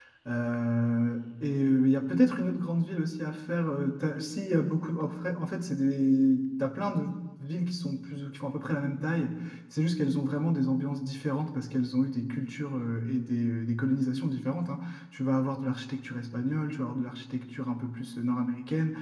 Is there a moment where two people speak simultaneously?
No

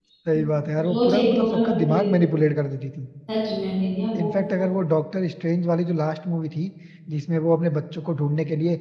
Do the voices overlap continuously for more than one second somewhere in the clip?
Yes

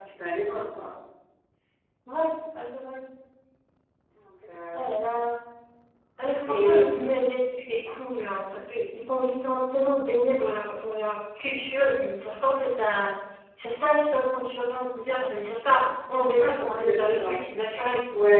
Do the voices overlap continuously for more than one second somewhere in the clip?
Yes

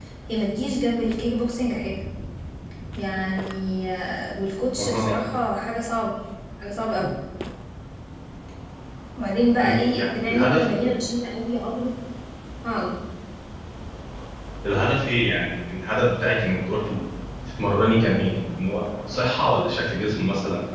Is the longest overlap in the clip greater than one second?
Yes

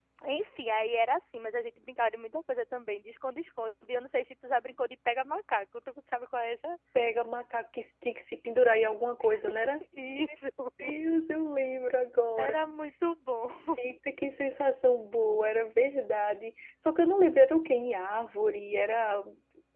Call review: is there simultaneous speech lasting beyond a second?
No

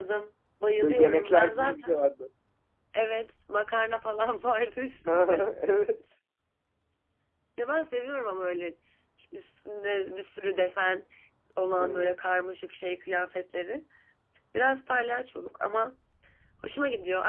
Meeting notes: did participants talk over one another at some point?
Yes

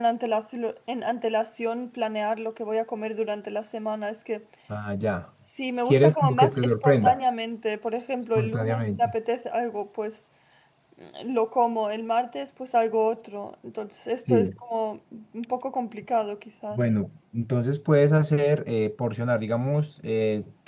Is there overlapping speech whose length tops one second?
Yes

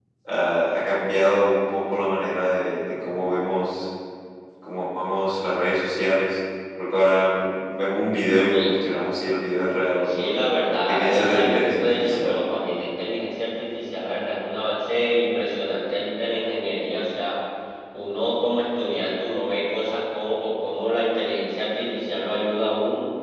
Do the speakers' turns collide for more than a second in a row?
Yes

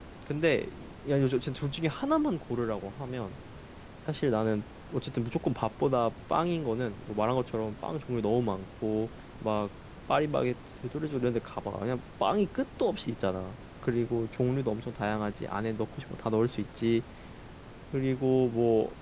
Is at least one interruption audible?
No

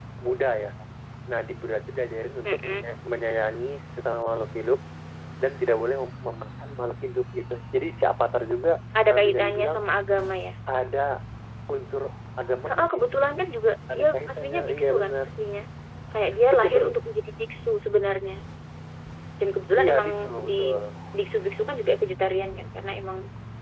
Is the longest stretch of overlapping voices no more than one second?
No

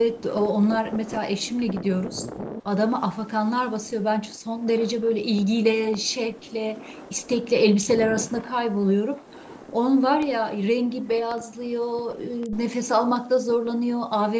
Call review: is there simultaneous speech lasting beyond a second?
No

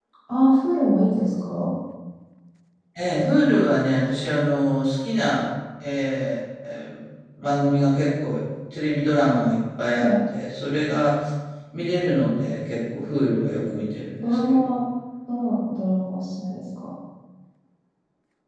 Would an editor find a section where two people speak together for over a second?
No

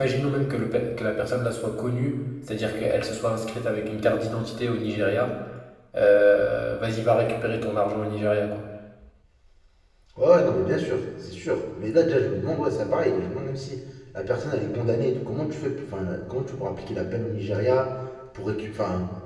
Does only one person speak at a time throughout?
Yes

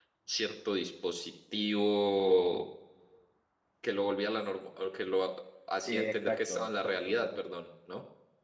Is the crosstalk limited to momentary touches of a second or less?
No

